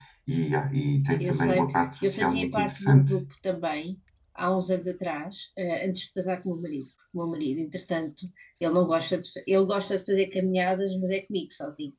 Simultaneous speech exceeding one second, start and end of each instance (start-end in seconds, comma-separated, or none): 1.2-3.1